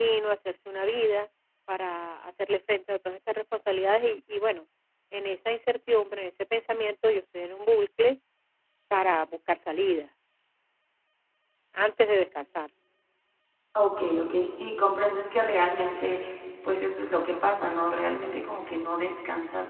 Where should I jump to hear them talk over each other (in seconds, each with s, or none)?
none